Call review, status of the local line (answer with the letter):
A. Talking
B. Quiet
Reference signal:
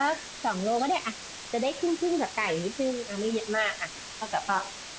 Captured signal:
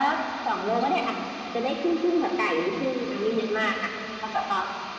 B